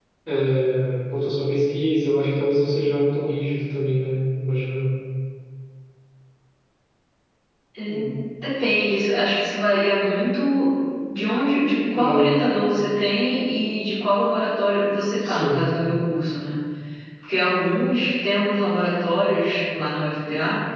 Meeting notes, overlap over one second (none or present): none